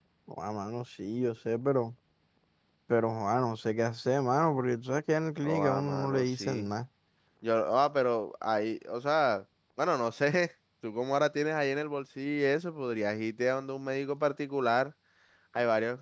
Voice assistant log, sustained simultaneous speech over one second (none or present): present